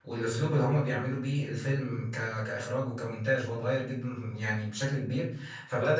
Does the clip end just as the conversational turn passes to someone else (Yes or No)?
No